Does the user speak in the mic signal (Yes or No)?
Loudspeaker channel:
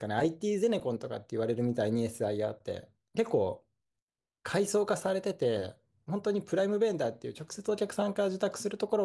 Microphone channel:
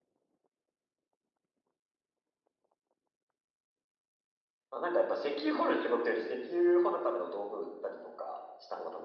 Yes